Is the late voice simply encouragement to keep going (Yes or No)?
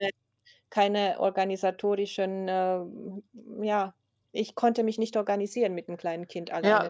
No